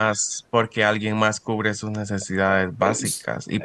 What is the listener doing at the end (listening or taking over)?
listening